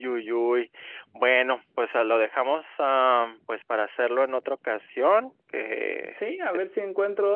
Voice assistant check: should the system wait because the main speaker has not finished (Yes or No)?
No